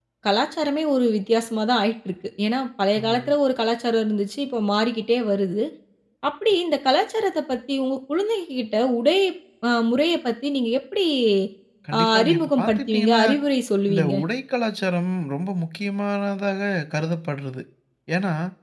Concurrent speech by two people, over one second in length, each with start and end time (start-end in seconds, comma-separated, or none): 12.0-13.2